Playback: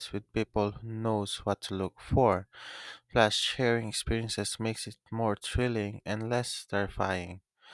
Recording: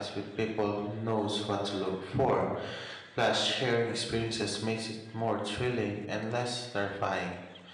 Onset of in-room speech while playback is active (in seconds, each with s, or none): none